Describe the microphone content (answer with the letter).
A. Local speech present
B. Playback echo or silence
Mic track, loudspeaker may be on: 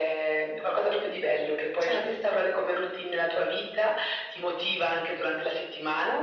A